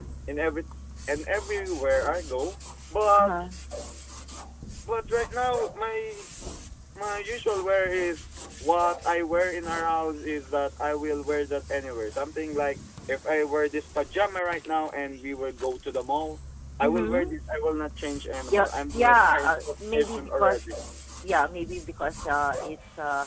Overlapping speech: Yes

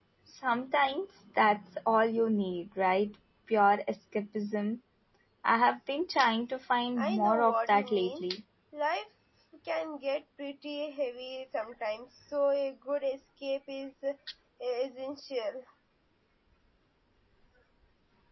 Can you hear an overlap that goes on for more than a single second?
Yes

